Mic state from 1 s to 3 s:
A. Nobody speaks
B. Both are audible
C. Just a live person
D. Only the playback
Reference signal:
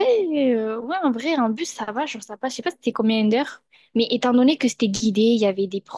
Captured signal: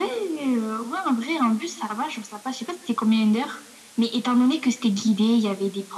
D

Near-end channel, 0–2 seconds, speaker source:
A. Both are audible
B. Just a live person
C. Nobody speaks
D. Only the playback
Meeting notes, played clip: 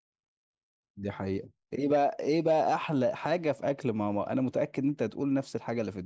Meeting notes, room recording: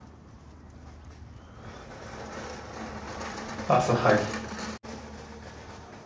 C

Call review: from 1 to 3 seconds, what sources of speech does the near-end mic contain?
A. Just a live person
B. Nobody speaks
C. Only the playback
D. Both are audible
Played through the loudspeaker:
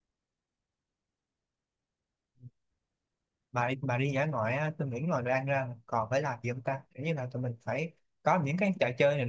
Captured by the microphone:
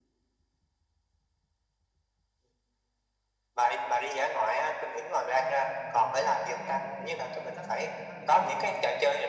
B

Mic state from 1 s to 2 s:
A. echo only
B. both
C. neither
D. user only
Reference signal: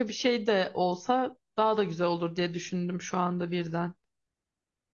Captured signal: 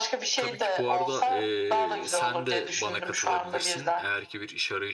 B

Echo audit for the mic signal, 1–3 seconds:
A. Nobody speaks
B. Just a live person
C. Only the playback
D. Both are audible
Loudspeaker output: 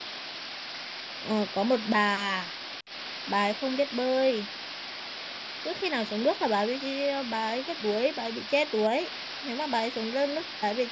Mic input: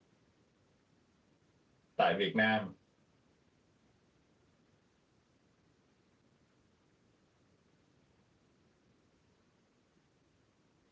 B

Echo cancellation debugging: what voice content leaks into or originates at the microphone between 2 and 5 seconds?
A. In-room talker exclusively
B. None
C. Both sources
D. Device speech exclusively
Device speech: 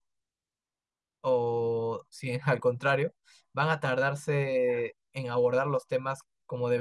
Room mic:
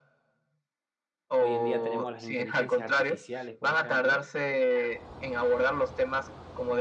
C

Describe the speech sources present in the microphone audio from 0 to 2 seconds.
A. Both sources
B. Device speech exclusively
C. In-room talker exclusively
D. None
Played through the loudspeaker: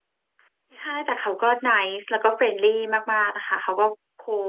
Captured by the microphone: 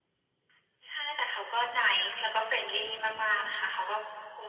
B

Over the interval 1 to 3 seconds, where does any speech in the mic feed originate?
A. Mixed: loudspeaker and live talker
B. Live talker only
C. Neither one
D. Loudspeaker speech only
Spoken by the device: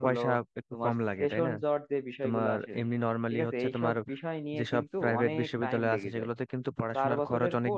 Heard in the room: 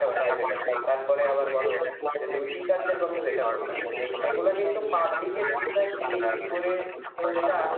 A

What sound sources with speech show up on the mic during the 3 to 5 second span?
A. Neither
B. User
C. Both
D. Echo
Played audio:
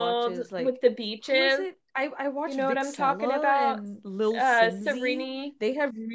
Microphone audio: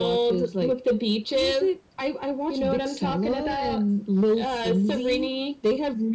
D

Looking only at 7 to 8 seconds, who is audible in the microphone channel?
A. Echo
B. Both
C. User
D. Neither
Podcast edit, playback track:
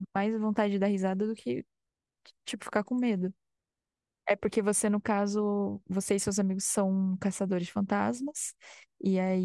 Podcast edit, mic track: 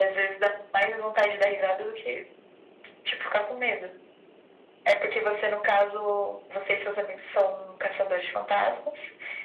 A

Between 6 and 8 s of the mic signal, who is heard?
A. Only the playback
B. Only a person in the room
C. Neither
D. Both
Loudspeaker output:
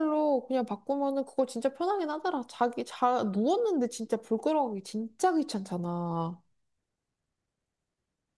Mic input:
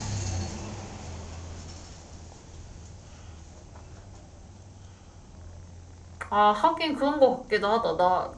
B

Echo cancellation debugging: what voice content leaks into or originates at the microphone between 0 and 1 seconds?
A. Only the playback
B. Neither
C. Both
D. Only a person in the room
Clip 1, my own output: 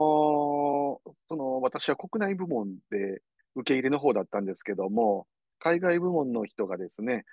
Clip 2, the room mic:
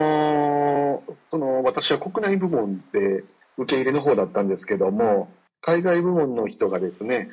A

